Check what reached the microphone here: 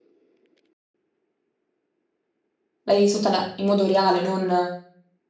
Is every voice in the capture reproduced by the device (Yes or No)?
No